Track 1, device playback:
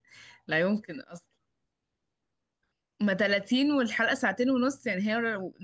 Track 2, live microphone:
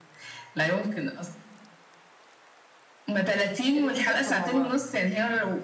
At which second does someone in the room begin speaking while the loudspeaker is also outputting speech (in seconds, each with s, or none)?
3.8 s